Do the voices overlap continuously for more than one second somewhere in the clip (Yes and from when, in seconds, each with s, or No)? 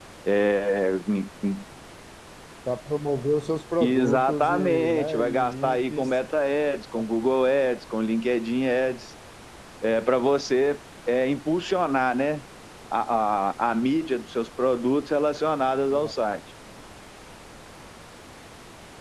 Yes, from 3.8 s